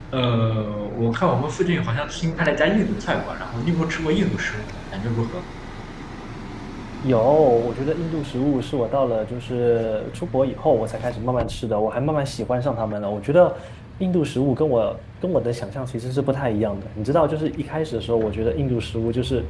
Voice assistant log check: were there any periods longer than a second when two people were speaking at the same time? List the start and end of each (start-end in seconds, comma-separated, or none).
none